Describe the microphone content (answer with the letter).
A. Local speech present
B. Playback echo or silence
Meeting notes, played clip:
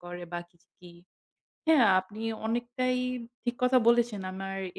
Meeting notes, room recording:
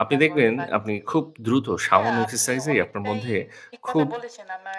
A